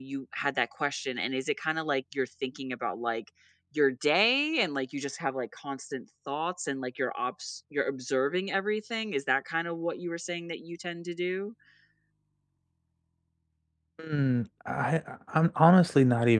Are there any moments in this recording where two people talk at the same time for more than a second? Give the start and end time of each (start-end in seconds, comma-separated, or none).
none